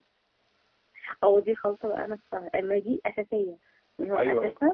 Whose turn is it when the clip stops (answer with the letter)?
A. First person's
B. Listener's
A